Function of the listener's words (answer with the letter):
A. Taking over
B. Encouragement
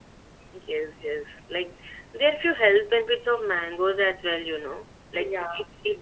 B